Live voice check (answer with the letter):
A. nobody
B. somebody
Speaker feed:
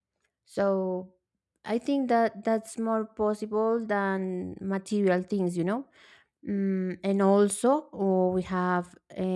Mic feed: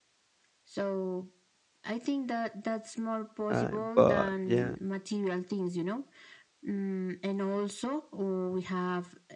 B